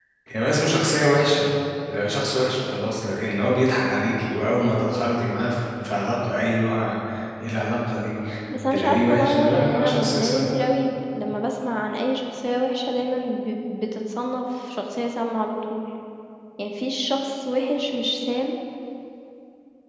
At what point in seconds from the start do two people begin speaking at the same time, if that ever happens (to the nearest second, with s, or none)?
9 s